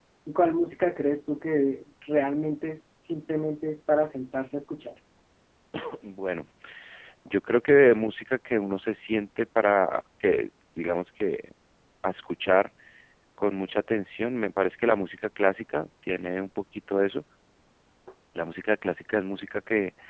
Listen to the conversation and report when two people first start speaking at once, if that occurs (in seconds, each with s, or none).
none